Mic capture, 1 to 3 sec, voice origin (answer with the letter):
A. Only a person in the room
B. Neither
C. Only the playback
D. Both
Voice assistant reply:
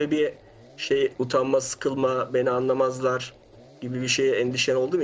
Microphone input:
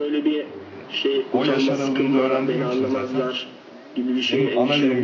D